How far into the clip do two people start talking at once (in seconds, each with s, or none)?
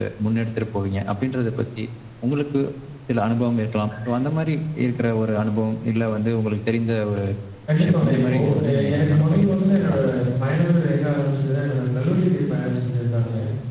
7.8 s